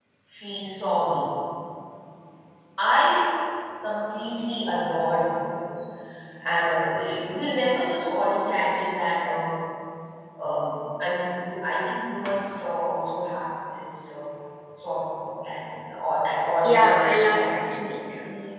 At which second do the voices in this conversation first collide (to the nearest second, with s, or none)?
17 s